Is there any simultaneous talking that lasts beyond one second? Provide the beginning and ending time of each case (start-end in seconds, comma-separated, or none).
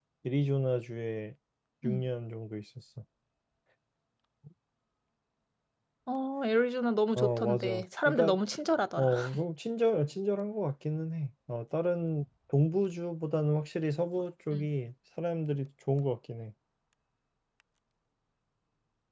7.2-8.4